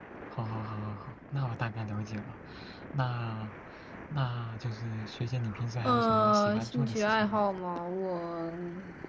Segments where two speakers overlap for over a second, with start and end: 5.8-7.4

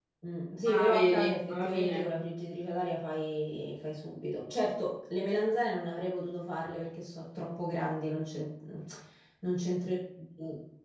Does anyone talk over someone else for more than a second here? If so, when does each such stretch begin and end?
0.6-2.1

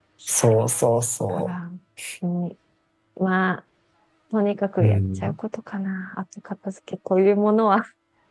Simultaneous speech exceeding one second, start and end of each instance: none

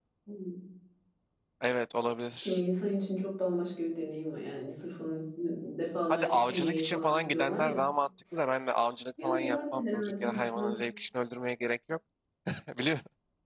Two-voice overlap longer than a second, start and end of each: 6.1-7.8, 9.2-10.7

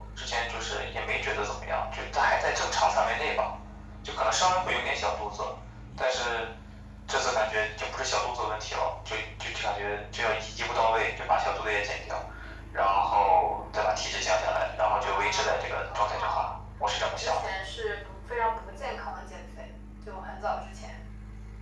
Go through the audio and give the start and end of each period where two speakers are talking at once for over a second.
15.0-16.4

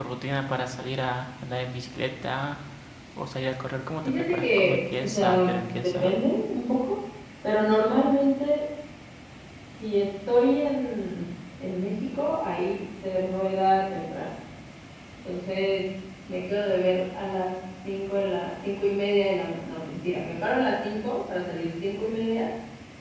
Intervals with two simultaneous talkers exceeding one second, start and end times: 4.0-6.1

